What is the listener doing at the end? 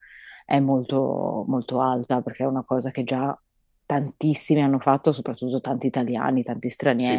taking over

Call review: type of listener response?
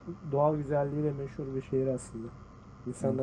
taking over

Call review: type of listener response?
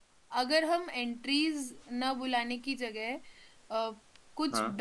listening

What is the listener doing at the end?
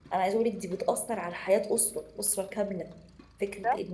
listening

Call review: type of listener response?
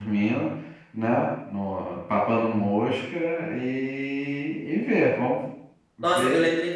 taking over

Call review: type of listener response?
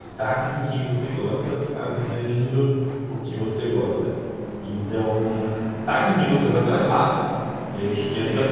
listening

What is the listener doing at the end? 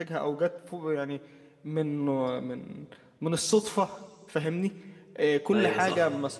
listening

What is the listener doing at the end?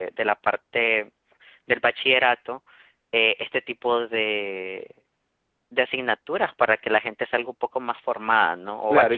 taking over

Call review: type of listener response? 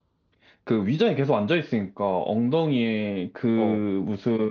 listening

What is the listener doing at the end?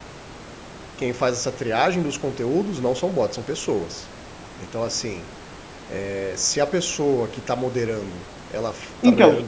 listening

